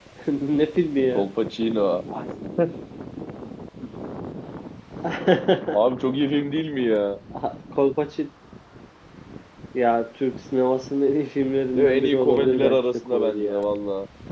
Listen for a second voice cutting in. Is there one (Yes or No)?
Yes